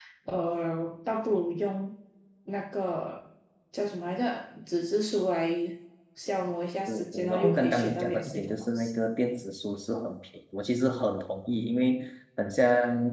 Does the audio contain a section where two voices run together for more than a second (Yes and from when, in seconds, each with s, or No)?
Yes, from 6.9 s